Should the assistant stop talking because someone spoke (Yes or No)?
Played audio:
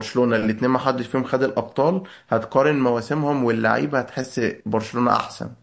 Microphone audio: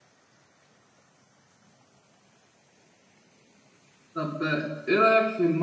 Yes